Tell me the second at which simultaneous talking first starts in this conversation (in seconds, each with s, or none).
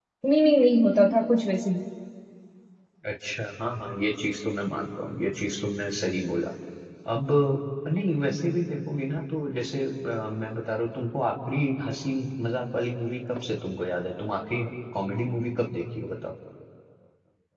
none